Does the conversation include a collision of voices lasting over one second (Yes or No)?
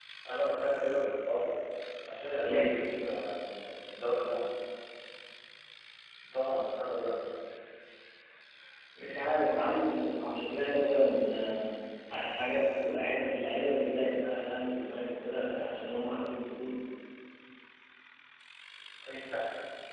No